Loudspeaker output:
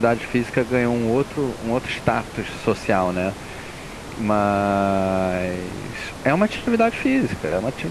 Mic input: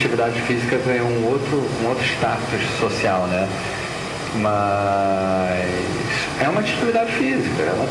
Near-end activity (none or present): none